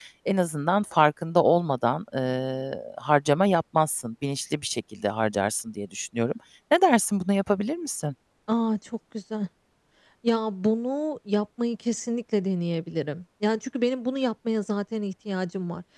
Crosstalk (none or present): none